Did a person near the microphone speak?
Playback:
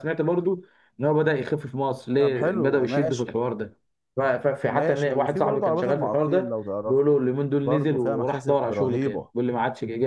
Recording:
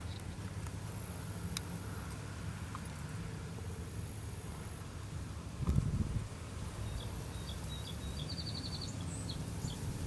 No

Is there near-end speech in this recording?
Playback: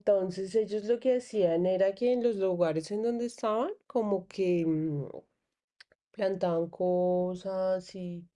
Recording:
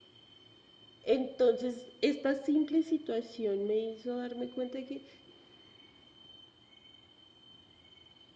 Yes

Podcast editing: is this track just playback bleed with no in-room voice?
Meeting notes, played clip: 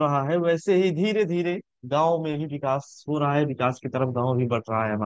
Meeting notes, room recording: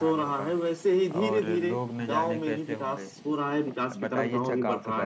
No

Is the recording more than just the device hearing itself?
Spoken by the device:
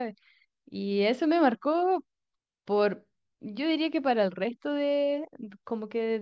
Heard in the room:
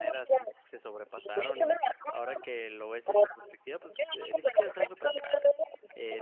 Yes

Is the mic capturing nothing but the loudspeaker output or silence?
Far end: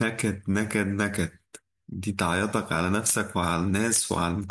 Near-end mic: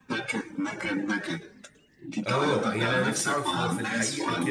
No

